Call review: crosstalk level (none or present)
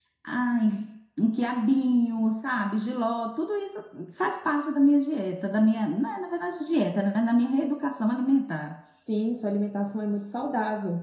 none